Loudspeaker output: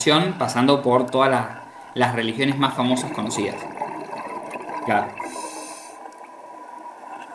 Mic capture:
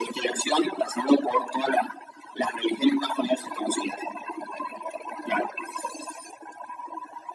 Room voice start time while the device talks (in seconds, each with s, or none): none